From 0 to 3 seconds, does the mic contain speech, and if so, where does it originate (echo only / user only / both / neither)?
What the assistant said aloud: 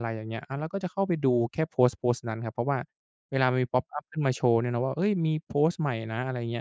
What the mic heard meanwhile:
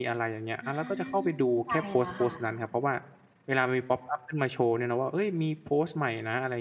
both